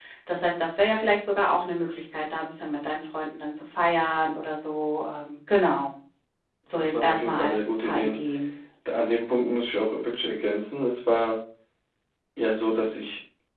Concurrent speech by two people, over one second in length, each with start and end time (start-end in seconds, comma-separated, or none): 6.7-8.2